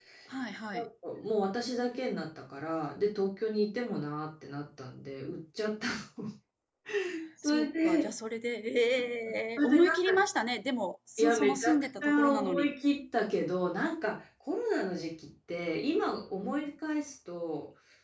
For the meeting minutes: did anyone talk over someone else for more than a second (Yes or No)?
Yes